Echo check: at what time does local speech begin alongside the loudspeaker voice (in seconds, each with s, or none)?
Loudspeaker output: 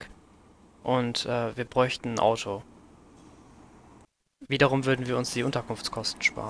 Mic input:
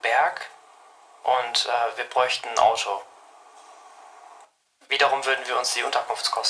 none